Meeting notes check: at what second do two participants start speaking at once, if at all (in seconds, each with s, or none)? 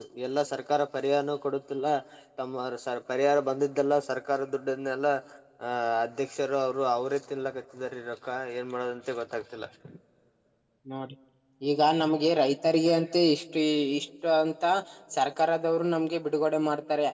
none